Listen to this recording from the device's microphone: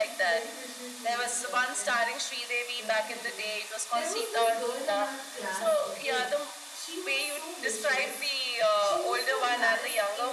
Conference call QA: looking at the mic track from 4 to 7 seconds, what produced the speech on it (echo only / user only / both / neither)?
both